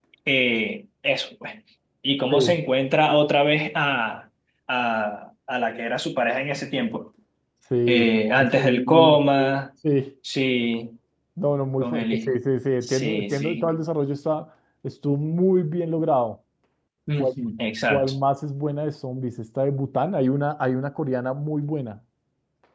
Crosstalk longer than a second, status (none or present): present